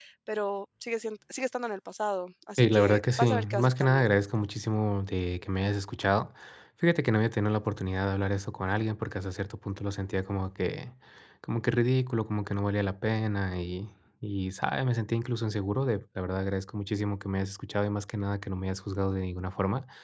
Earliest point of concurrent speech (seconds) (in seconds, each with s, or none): 2.6 s